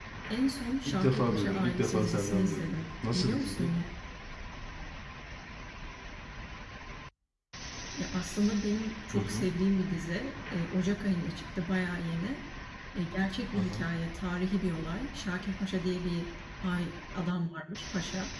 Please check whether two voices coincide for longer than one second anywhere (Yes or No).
Yes